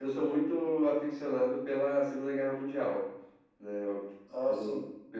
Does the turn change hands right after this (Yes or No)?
No